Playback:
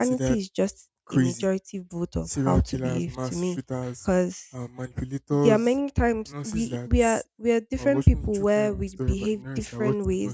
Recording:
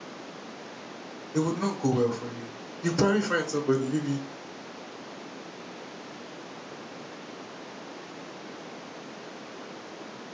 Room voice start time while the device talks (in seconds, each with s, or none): 1.3 s